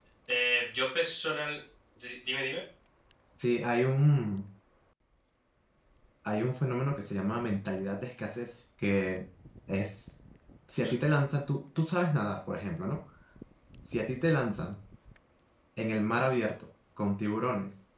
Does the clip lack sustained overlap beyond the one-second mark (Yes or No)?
Yes